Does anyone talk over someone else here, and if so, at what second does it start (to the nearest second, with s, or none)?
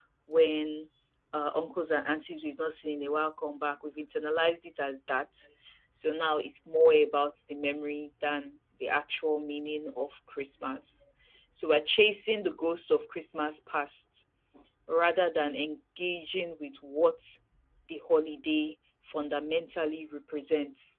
none